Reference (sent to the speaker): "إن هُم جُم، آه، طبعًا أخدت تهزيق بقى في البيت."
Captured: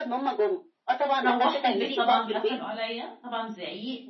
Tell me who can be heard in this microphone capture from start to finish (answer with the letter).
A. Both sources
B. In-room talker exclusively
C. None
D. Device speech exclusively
A